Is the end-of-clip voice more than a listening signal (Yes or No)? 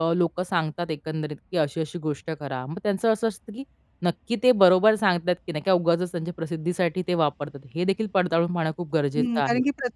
Yes